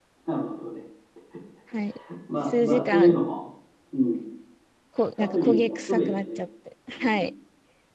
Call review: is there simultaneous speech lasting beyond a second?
Yes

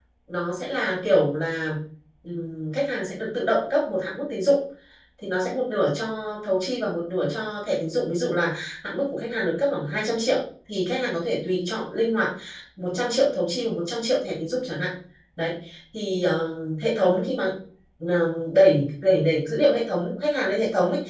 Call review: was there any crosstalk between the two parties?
No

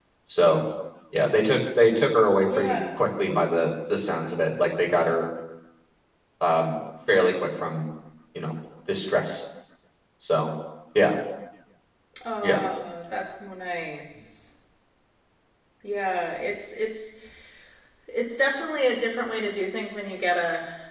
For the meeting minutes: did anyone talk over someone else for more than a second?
No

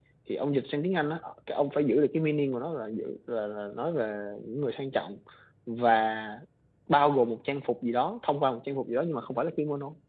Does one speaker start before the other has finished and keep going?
No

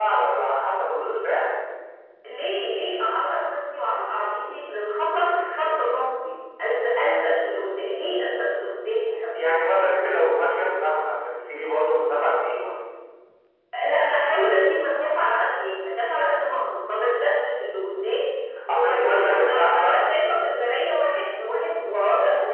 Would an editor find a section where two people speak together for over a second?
Yes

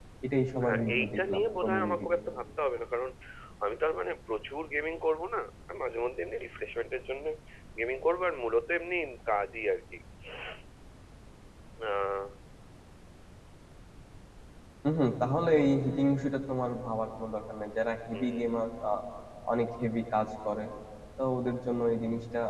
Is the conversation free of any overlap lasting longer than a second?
No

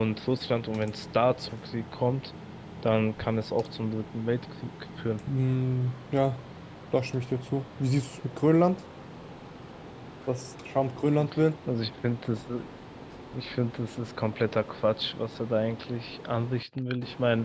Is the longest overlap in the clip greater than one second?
No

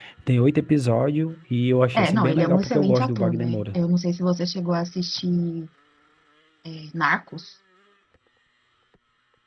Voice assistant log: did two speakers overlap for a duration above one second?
Yes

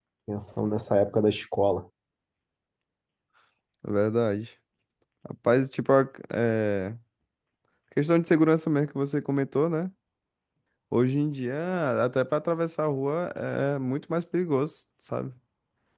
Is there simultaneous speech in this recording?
No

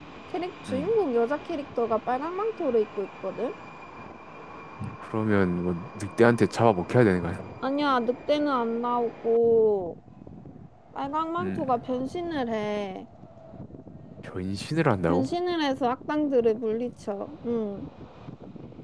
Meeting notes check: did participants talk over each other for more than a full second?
No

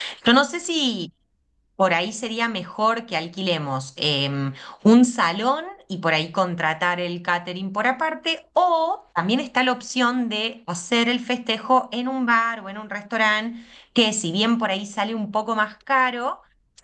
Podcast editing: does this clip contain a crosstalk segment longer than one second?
No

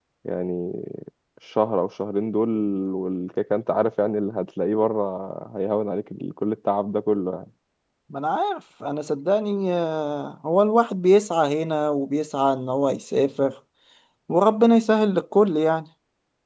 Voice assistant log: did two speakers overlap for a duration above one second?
No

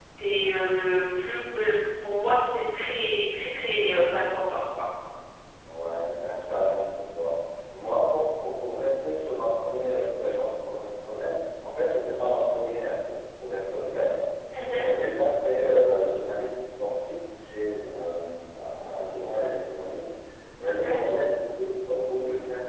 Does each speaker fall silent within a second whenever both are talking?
Yes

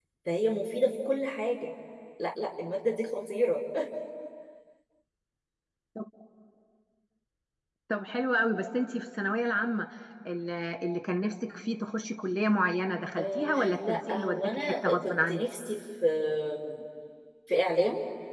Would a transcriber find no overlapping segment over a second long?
No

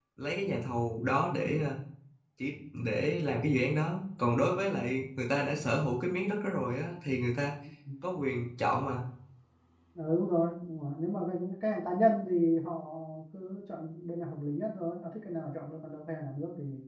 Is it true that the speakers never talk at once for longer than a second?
Yes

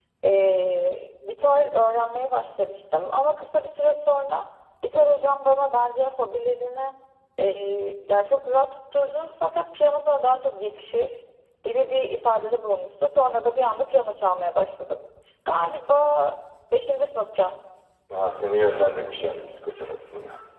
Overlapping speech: No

